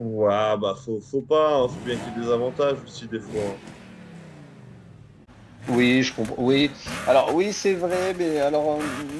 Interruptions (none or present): none